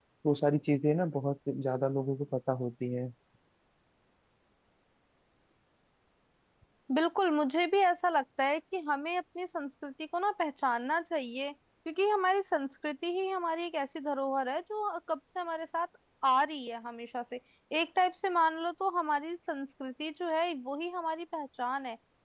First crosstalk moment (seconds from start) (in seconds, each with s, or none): none